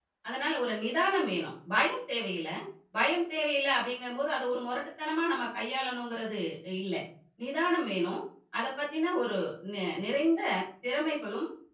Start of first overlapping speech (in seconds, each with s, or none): none